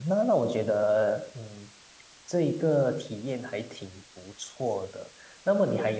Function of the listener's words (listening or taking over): listening